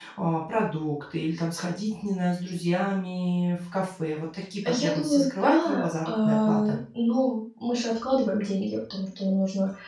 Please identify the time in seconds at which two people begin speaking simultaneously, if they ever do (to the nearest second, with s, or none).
5 s